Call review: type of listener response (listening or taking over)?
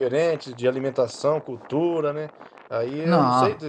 listening